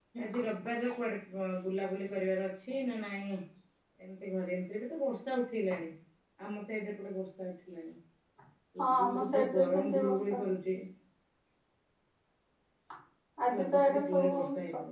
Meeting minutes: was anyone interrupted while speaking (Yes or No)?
Yes